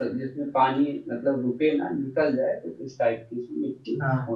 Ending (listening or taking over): taking over